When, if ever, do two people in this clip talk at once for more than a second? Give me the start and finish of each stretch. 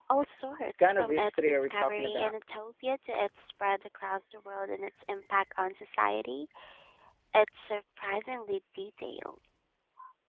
0.8-2.3

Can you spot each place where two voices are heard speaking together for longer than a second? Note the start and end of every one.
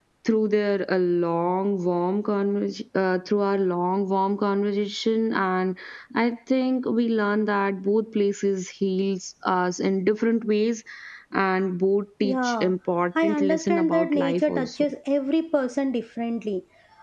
13.2-14.9

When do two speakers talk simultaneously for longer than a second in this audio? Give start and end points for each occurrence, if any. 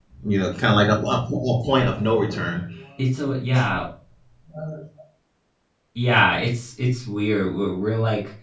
none

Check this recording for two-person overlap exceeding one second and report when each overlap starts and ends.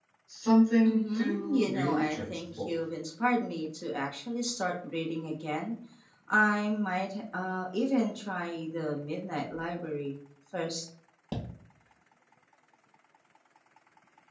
0.8-2.6

